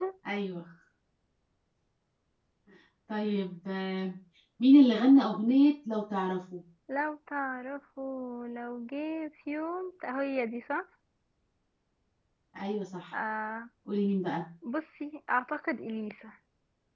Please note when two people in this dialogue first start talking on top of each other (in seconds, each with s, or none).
none